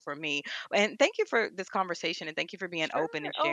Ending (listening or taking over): taking over